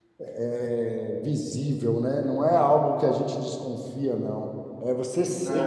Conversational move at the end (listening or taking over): listening